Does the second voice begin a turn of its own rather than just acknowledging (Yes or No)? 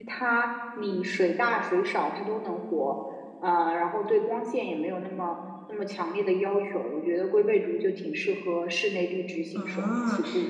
Yes